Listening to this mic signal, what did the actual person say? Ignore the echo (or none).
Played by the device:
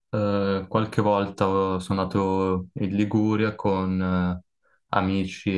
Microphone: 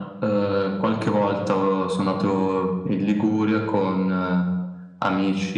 none